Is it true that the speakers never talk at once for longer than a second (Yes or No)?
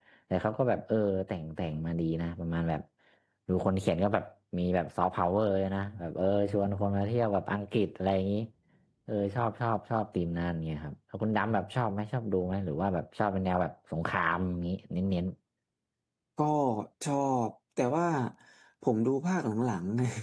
Yes